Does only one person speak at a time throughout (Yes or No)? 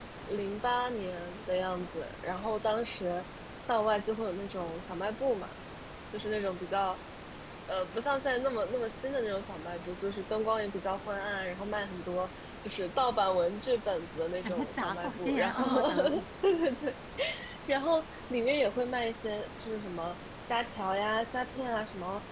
No